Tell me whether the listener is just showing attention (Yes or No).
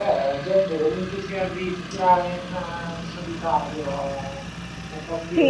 No